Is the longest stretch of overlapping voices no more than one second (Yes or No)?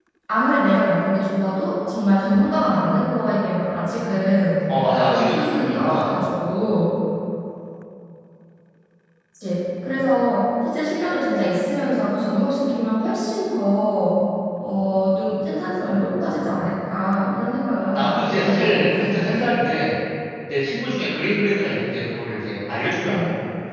No